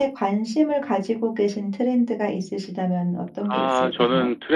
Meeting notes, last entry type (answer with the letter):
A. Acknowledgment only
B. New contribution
B